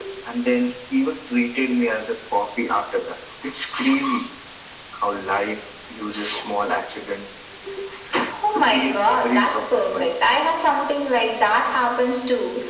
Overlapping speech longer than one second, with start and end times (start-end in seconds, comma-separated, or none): 8.5-10.1